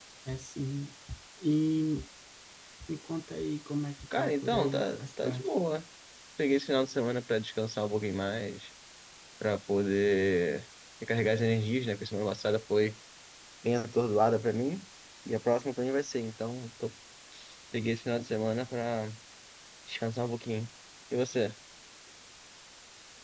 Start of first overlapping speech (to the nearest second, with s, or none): 4 s